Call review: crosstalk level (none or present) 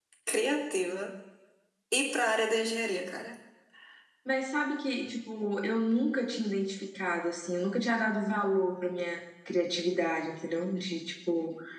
none